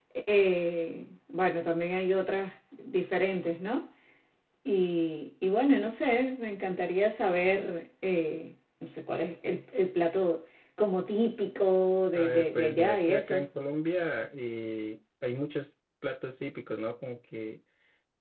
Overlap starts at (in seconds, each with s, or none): 12.1 s